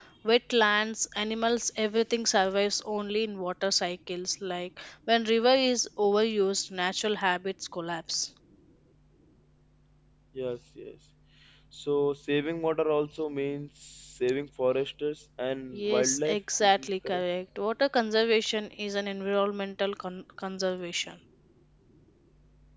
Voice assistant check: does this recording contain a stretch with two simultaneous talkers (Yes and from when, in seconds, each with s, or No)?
Yes, from 15.7 s